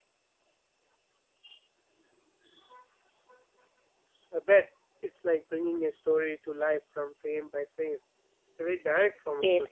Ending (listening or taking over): taking over